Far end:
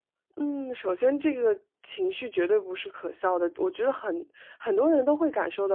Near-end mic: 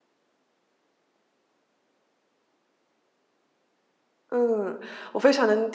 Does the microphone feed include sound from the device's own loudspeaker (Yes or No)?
No